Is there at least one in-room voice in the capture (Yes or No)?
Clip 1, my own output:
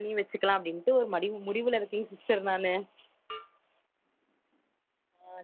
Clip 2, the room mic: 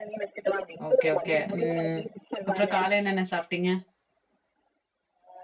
Yes